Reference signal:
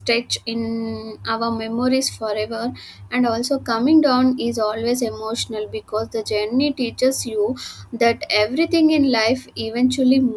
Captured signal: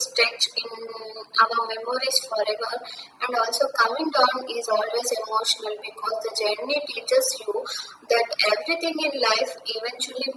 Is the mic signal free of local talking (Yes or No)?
Yes